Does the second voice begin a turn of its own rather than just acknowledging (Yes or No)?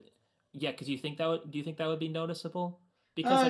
No